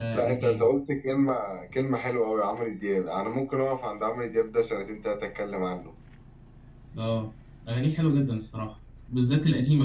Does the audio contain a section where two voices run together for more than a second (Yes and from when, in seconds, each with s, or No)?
No